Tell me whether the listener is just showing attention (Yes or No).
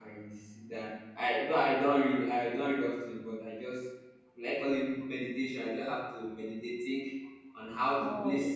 Yes